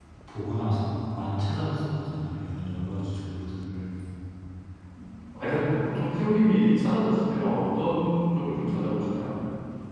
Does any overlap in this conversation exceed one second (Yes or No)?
No